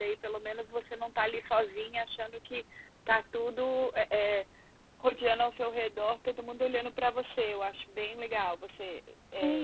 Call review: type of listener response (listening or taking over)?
taking over